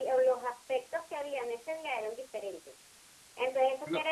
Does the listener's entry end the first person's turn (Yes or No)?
No